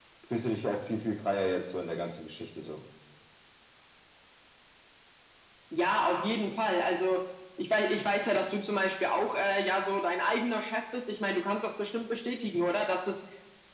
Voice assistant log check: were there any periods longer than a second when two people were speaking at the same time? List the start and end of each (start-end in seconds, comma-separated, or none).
none